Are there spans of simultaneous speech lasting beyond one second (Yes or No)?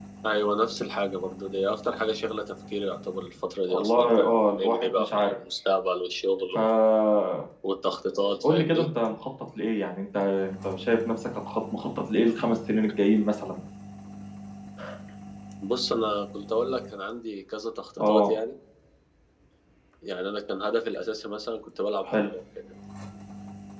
Yes